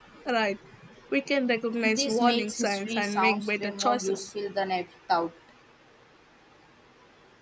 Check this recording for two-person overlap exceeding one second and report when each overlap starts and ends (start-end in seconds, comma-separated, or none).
1.8-4.3